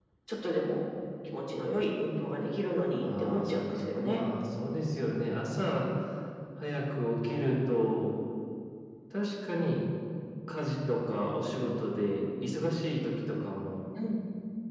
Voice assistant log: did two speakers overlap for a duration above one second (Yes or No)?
Yes